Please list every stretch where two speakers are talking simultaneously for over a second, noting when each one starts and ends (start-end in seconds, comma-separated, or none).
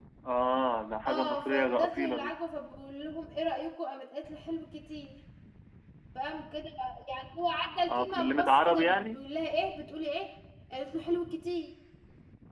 1.1-2.3, 7.9-9.2